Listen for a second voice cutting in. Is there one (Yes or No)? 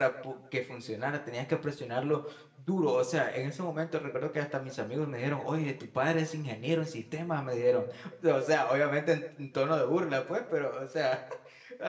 No